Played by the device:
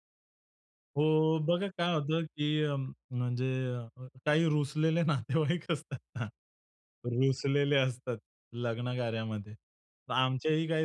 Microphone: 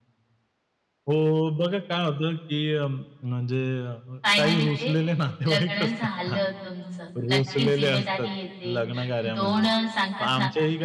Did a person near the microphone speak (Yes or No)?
Yes